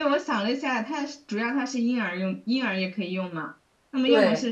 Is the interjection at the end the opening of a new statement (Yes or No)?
No